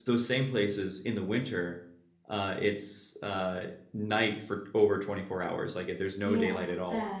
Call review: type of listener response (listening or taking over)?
taking over